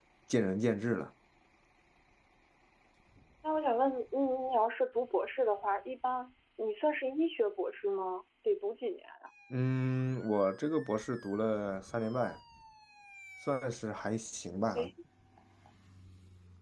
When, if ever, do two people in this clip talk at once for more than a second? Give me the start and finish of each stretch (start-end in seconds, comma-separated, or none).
none